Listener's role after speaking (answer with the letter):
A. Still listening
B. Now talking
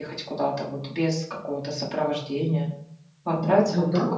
B